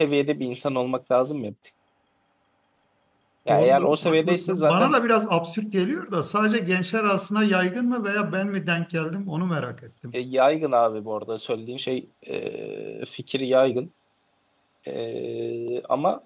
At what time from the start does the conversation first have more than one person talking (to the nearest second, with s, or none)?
3 s